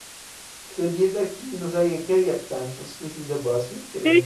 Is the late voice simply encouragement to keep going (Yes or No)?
No